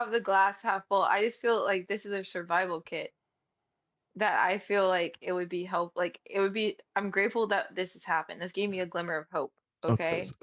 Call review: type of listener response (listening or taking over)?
taking over